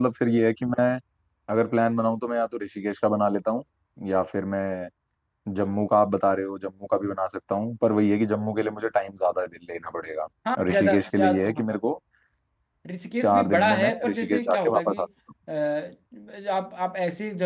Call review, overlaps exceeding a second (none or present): present